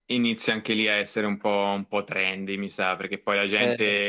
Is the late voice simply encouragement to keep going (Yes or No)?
Yes